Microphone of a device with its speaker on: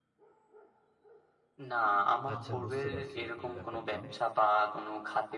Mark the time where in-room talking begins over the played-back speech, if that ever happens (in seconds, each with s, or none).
2.3 s